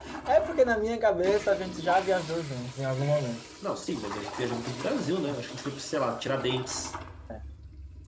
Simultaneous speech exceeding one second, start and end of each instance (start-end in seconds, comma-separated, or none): none